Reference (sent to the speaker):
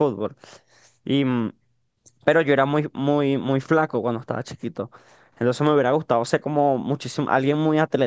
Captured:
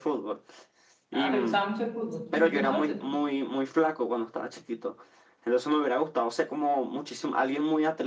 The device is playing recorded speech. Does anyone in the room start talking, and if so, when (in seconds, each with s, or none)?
1.1 s